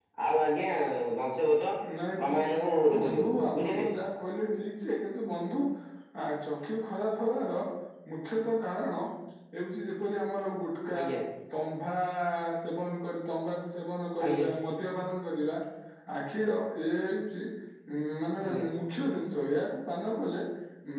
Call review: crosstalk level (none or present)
present